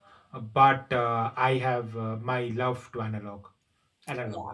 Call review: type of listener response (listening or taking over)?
taking over